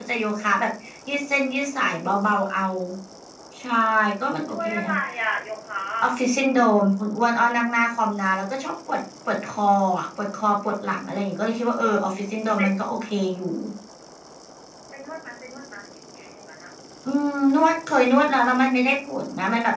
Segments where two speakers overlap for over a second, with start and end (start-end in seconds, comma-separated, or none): none